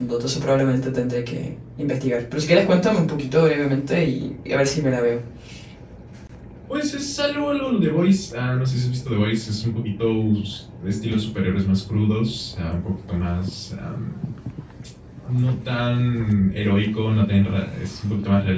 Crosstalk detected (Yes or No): No